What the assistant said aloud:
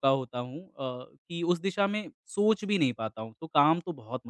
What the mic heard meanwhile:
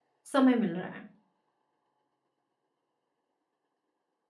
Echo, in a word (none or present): none